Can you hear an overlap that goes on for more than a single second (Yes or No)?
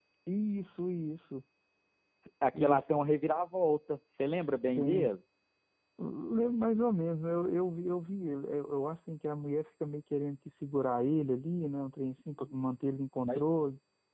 No